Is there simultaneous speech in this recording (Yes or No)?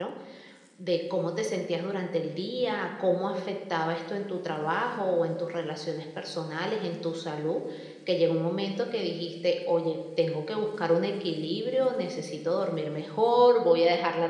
No